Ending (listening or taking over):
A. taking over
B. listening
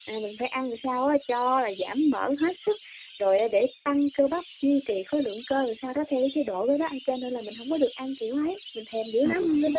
A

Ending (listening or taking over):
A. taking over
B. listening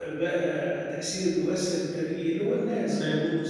B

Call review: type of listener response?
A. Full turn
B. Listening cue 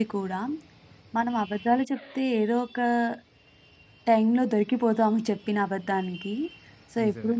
B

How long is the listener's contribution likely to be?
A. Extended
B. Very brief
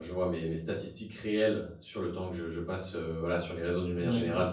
A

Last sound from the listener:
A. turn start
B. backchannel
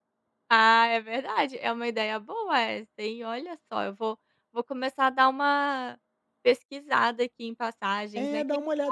A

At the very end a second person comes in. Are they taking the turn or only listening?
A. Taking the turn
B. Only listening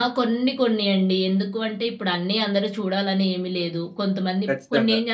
B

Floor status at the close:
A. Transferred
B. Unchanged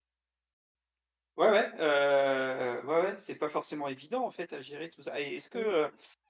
B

